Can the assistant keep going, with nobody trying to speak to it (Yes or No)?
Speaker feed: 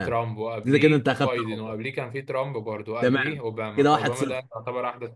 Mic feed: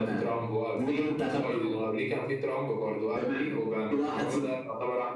Yes